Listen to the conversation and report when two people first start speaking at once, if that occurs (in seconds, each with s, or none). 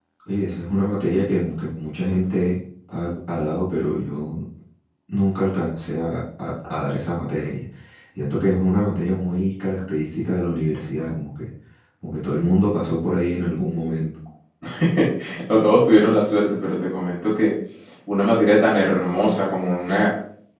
none